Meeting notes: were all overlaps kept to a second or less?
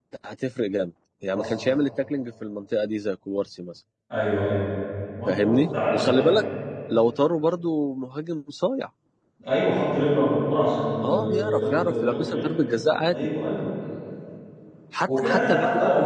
No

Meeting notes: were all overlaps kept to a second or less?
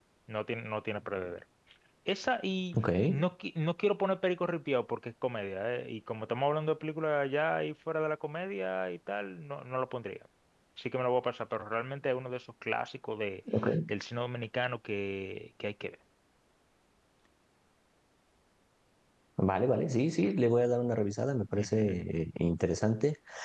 Yes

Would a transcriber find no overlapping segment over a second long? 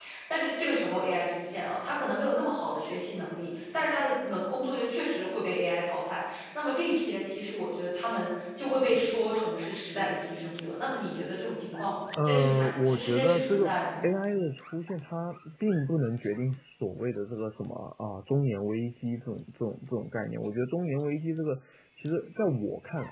No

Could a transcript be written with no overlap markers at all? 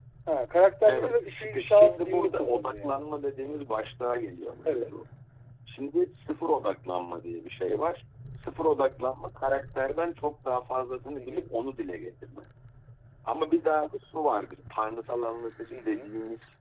No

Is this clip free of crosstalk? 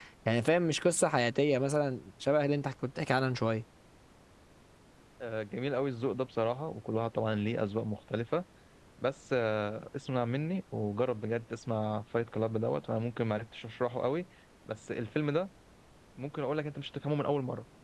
Yes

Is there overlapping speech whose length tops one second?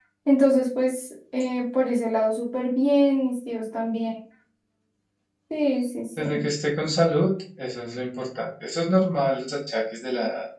No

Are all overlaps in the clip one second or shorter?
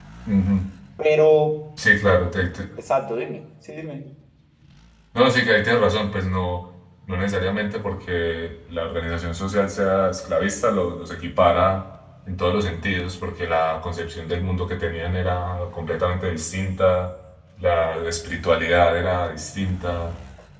Yes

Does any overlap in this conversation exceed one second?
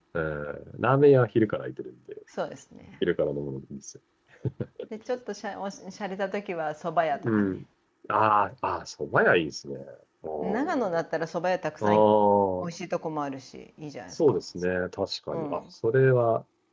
No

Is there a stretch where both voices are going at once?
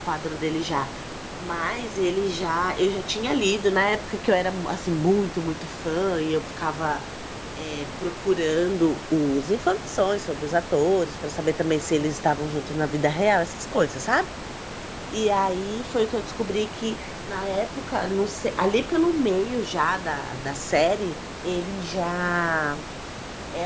No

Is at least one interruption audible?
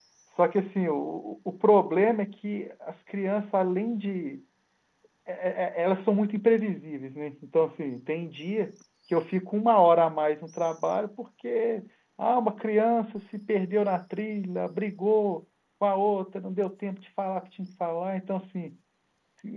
No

